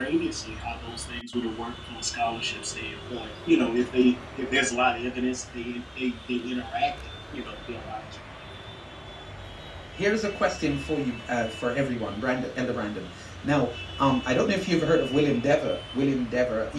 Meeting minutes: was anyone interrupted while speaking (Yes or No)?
No